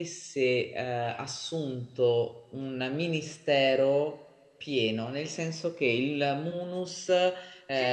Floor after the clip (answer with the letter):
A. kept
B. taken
B